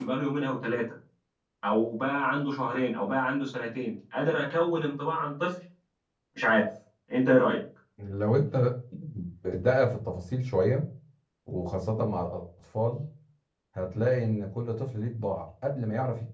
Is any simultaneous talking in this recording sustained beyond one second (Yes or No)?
No